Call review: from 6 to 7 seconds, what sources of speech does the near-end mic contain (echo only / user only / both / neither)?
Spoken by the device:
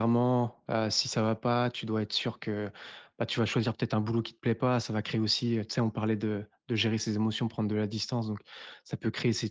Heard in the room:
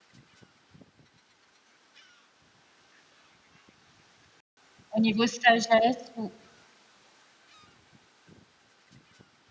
user only